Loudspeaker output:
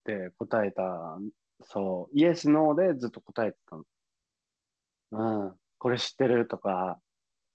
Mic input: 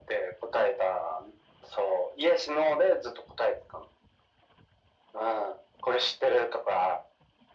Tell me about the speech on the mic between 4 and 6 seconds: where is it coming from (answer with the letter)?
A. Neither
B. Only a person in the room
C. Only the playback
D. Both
C